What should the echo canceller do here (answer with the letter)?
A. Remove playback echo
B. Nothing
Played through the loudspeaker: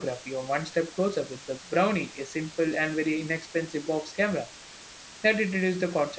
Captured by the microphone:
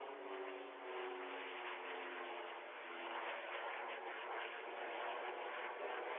B